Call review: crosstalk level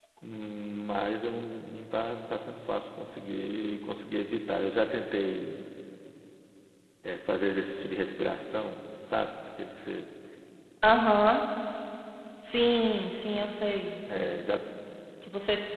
none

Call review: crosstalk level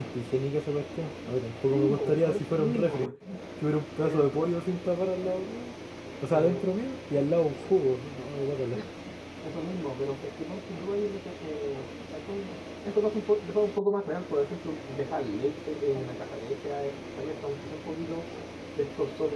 present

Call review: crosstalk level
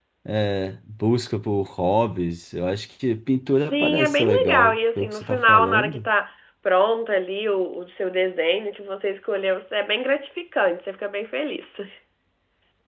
present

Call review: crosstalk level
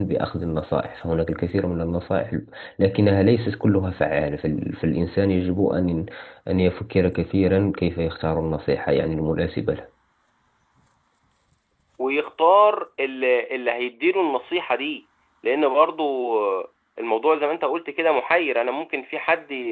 none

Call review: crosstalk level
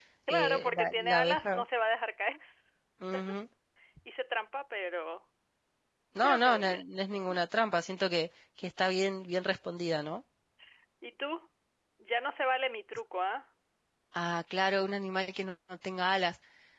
present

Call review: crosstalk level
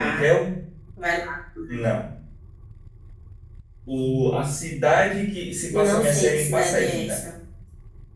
present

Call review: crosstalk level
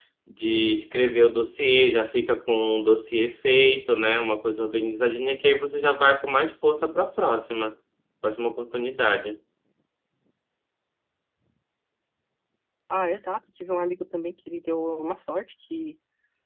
none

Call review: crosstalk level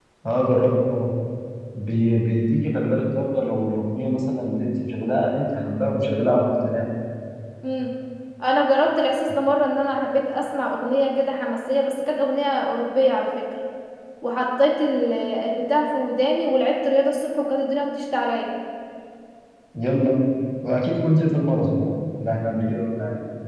none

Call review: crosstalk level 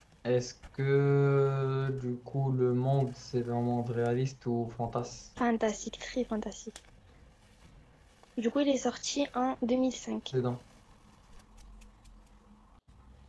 none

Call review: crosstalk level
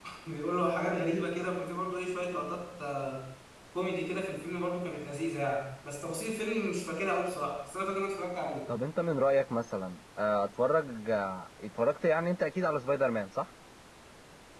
none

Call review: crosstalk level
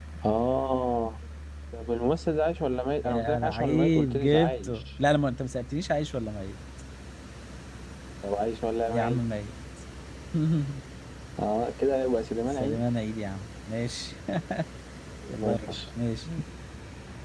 present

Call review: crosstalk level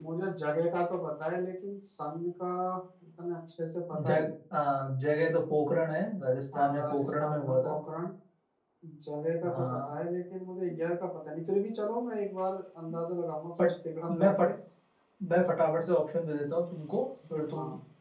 present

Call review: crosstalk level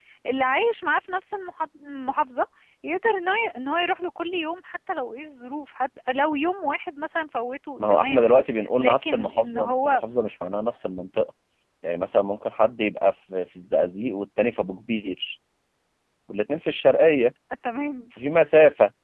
present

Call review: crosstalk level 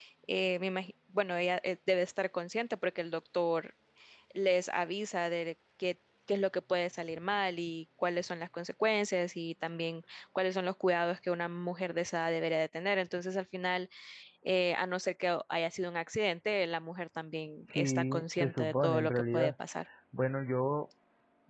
present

